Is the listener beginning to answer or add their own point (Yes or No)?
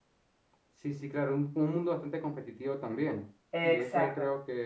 No